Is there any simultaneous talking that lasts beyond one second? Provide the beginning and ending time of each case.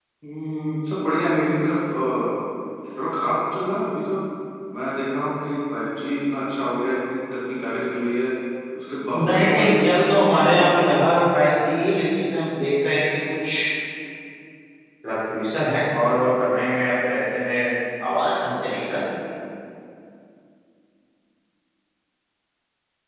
9.1-10.9

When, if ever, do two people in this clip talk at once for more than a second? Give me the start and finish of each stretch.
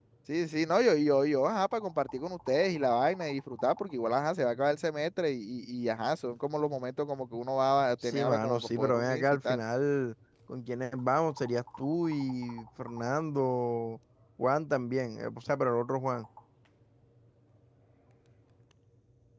8.0-9.6

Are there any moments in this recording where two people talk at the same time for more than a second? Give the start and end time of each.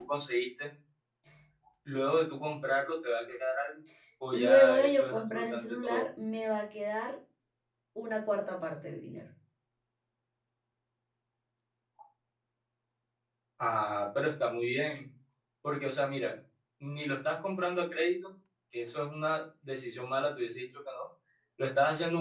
4.3-6.0

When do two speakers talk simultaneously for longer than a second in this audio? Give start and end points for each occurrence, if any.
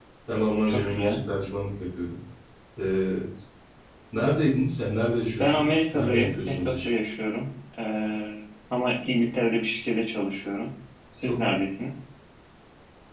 5.4-6.9

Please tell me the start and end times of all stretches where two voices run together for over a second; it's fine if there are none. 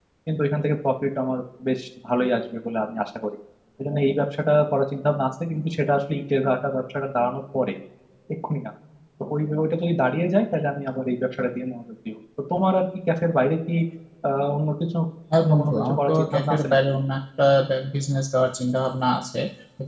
15.4-16.8

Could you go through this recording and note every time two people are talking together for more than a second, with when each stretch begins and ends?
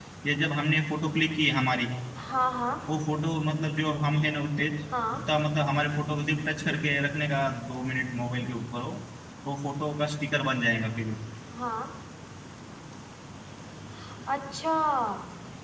none

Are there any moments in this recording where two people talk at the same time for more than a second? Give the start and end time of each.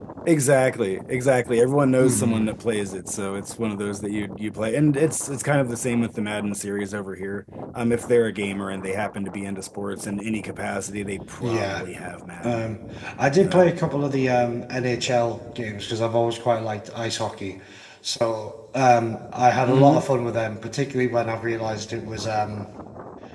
none

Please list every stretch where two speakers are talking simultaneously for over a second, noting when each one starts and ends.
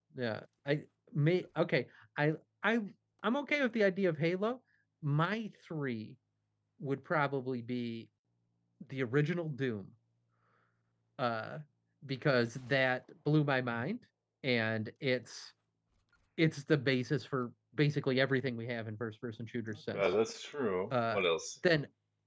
none

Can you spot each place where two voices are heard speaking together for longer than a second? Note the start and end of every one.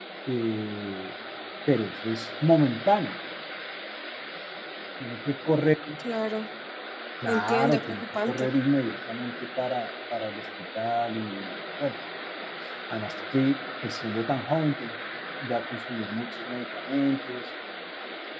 7.3-8.5

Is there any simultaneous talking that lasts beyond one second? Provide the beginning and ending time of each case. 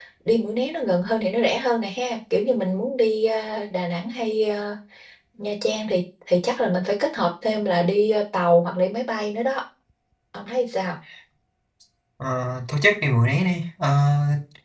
none

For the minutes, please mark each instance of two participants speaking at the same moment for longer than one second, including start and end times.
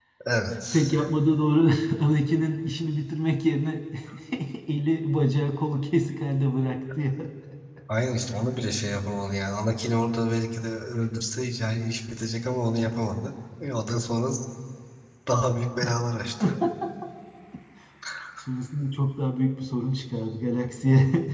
none

